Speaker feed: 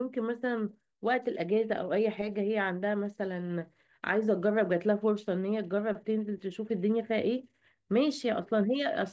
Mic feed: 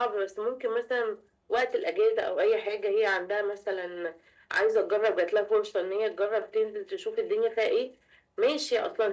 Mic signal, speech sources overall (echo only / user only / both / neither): echo only